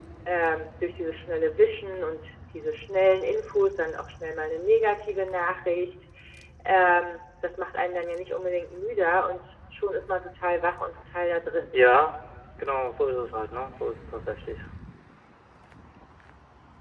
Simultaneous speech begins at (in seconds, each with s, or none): none